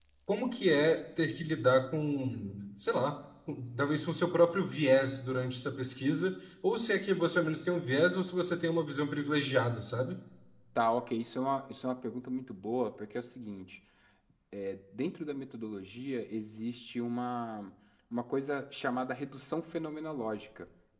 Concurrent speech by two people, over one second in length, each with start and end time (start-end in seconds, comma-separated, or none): none